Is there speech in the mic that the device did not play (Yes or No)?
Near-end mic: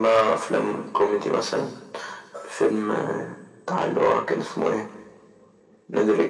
No